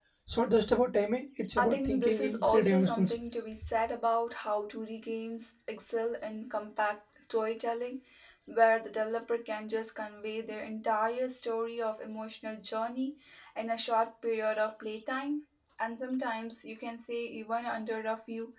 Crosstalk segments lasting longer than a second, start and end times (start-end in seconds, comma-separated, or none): 1.6-3.2